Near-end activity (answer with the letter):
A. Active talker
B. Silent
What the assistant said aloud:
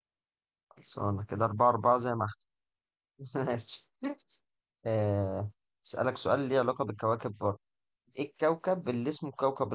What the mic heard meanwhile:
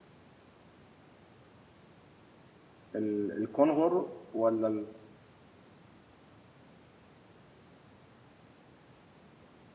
A